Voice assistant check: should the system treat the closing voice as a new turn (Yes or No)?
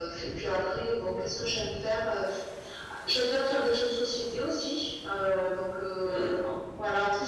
No